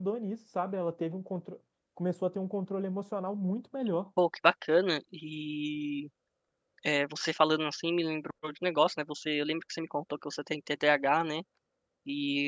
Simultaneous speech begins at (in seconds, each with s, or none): none